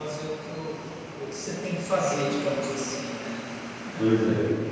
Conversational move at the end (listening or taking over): taking over